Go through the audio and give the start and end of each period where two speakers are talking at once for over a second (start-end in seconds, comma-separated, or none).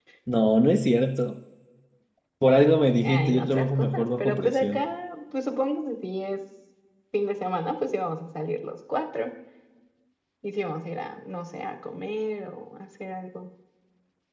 3.0-4.8